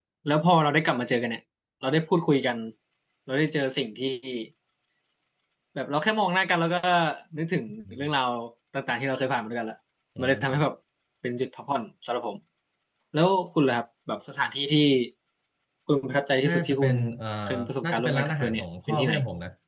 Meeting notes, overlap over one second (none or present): present